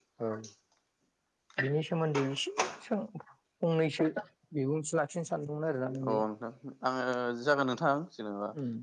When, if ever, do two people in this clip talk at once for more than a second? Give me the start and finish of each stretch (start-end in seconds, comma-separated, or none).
none